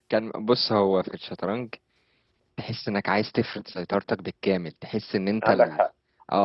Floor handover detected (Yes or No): No